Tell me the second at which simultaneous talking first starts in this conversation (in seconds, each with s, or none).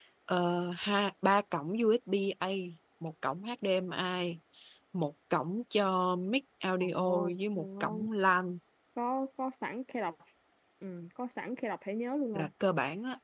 6.8 s